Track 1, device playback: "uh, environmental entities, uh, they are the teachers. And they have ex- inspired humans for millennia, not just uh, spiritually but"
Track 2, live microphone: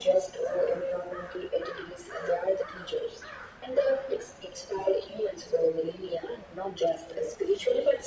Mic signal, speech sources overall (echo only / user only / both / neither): echo only